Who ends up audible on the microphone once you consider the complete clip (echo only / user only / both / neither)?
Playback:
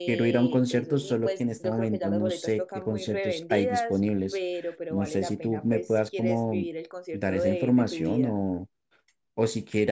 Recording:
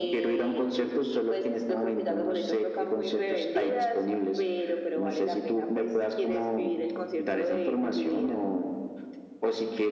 echo only